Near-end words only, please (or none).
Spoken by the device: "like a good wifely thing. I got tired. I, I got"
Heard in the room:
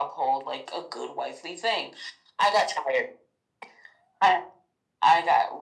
none